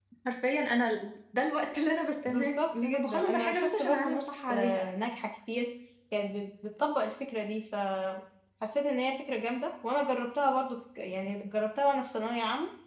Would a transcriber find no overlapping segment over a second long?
No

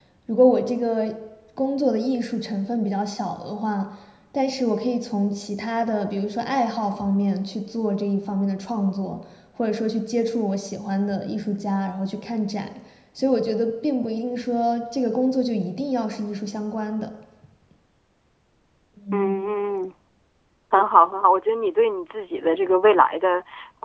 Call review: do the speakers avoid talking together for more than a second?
Yes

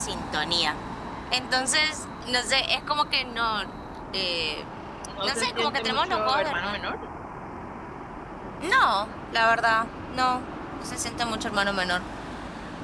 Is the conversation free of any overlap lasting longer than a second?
No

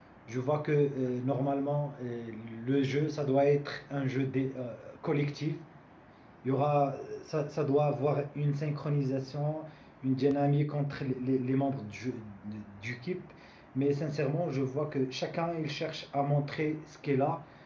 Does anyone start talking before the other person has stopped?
No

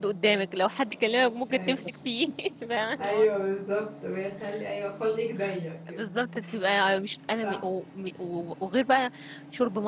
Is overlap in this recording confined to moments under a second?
Yes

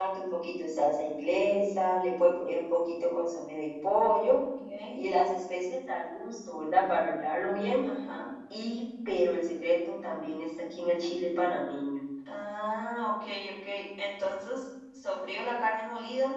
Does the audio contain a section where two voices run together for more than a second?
No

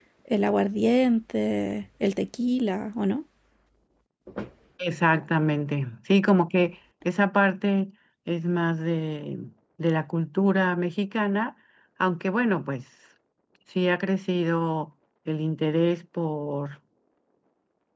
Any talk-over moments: No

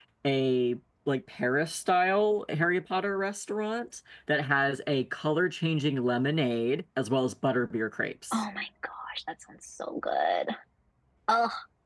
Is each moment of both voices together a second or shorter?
Yes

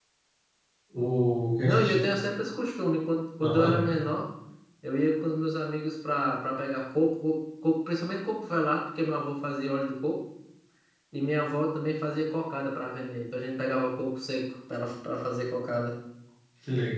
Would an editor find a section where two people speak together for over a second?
No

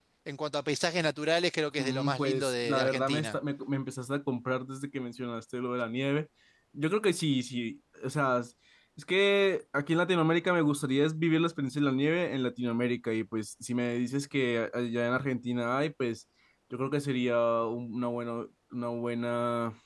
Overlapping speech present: Yes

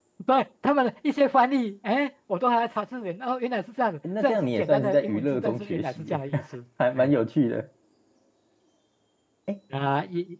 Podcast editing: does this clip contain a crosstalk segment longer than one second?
Yes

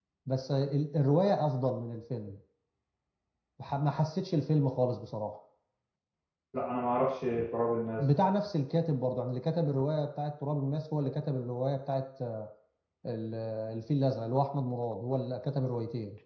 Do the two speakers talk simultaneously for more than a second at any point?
No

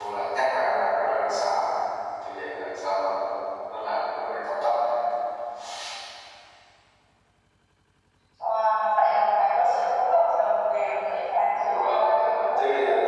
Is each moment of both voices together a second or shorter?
No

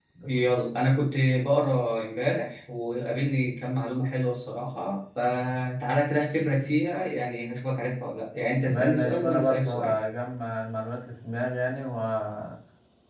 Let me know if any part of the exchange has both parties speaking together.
Yes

